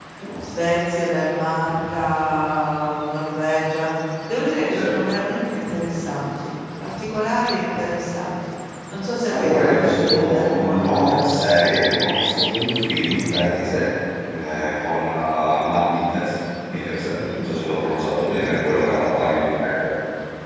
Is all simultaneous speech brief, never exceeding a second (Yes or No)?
No